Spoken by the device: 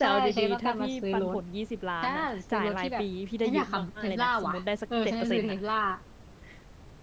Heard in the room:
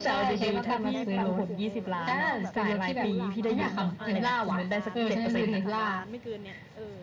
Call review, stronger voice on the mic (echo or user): echo